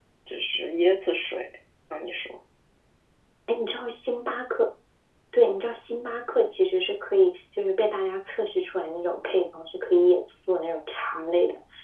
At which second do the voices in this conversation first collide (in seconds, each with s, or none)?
none